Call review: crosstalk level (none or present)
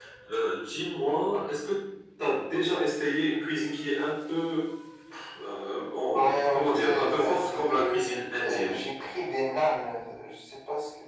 present